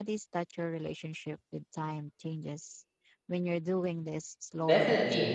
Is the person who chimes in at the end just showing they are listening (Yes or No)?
No